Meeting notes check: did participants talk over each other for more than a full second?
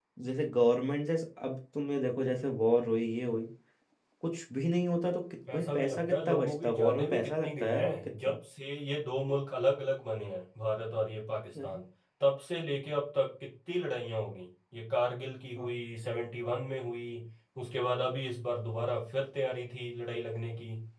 Yes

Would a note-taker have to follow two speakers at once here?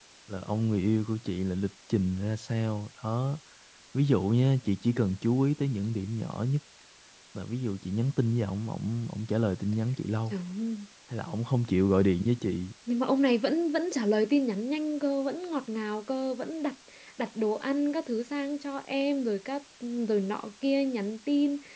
No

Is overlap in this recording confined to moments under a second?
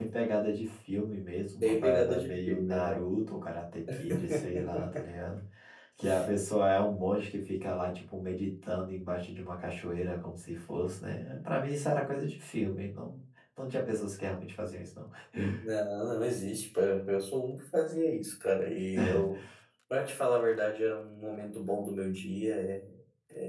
No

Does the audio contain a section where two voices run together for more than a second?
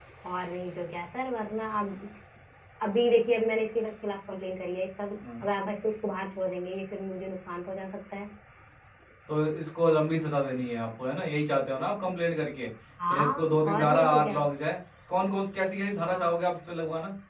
Yes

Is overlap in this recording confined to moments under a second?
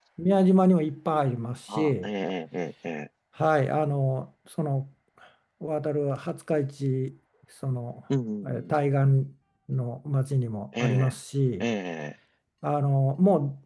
Yes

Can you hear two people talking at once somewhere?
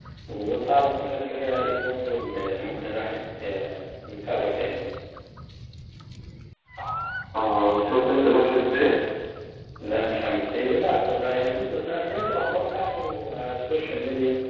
No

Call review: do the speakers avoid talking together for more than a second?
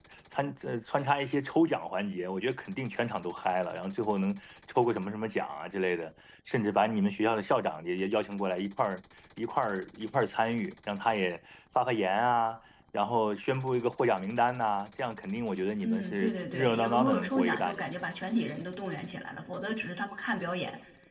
No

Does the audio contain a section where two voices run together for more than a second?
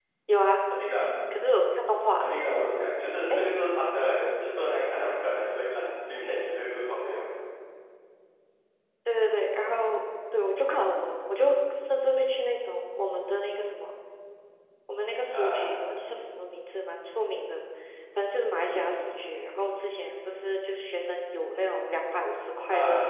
No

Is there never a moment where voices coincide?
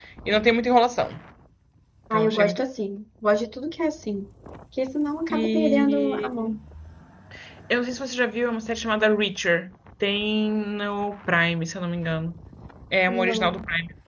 No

